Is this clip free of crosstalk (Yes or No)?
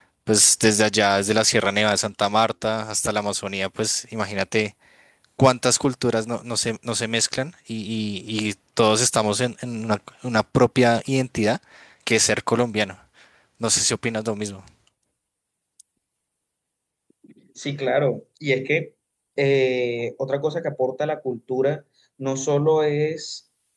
Yes